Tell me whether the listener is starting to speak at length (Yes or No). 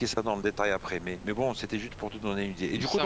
No